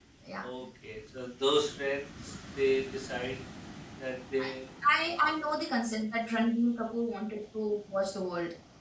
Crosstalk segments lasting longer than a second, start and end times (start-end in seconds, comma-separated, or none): none